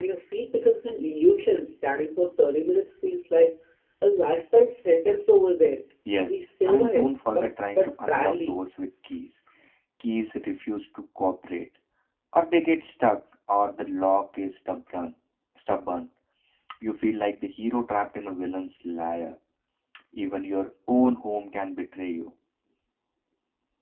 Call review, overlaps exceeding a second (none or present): present